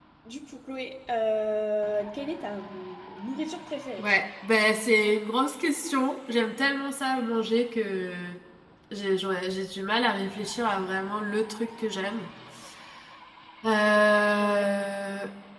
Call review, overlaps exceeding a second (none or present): none